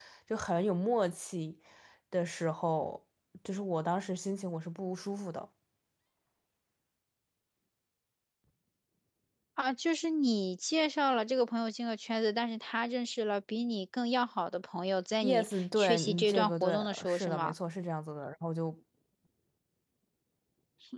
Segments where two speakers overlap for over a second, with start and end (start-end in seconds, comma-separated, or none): 15.2-17.5